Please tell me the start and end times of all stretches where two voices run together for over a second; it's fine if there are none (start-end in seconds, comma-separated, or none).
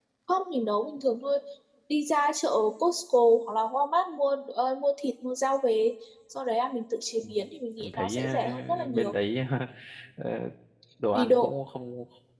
7.8-9.2